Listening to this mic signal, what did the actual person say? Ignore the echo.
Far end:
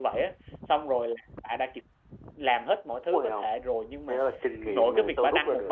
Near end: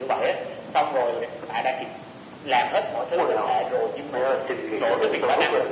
none

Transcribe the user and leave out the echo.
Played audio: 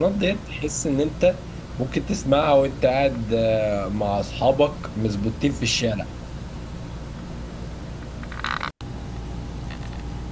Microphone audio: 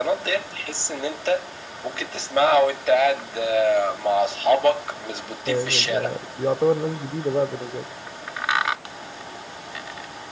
فاهم اللي هي دي يعتبر ناس جديده بقى بالنسبه لي

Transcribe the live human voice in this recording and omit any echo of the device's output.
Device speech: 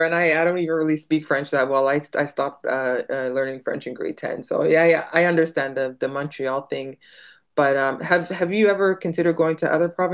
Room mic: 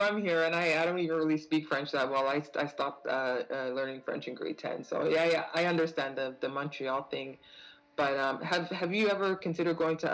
none

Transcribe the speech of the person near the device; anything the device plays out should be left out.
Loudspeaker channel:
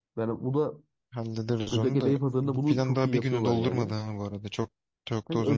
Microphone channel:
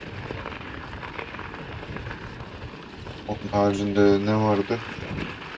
Onun haricinde ne vardı?

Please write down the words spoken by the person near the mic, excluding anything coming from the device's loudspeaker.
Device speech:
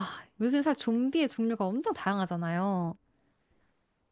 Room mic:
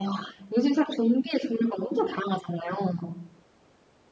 none

